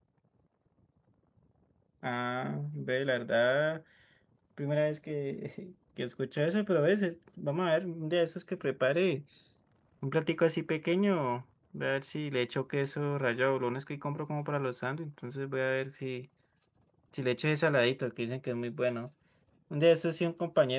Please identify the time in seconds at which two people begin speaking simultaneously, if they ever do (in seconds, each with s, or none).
none